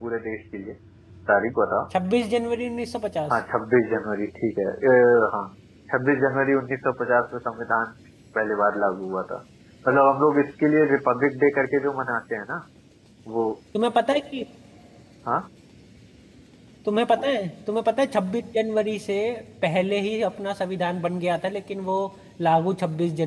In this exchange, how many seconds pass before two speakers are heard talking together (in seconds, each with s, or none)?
none